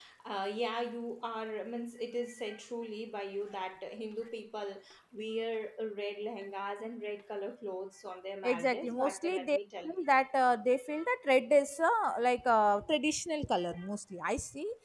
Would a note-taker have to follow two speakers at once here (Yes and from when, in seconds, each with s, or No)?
Yes, from 8.4 s